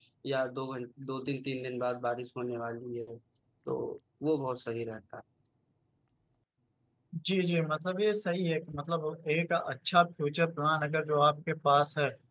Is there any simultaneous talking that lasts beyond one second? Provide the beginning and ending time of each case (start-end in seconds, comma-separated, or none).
none